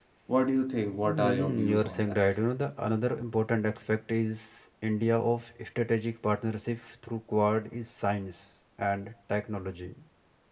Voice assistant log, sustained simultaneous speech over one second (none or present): present